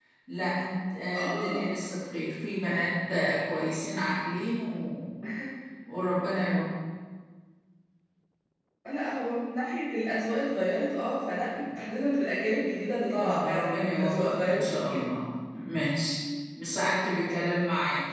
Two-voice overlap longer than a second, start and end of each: 13.1-15.0

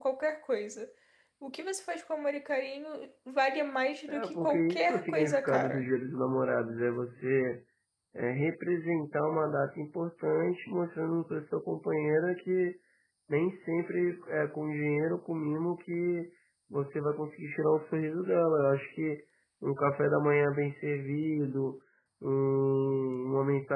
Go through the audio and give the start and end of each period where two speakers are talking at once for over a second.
4.1-5.8

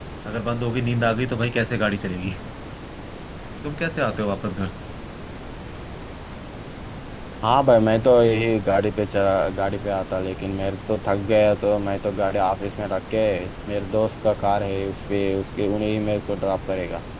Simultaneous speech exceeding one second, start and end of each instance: none

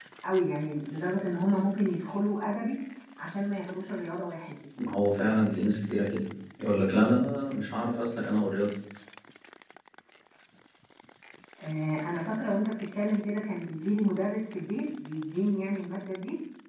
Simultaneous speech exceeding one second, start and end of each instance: none

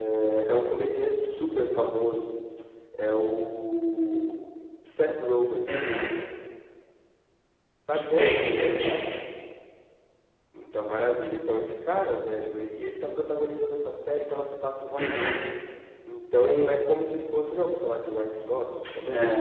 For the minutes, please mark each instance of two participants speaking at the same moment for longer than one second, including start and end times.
none

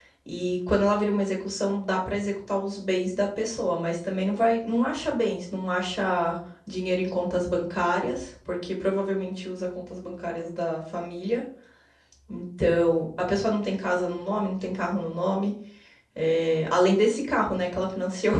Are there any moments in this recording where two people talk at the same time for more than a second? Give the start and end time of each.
none

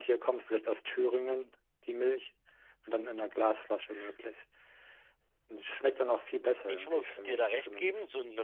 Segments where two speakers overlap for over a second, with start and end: 6.7-7.9

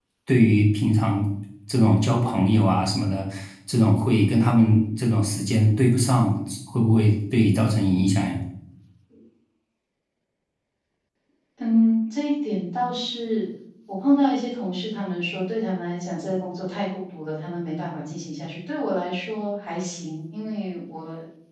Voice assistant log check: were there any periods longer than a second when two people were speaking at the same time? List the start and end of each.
none

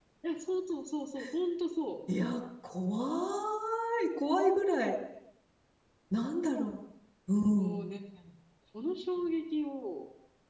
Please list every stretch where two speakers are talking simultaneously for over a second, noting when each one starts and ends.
none

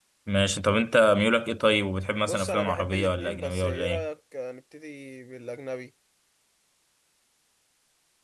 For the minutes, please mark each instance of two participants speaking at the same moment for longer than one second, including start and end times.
2.2-4.1

